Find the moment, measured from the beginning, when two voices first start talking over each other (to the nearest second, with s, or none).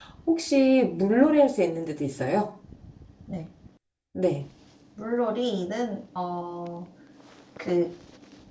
none